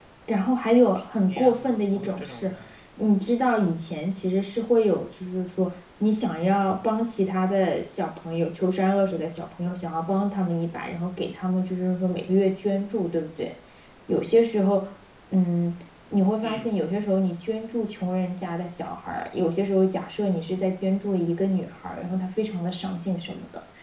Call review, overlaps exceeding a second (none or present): present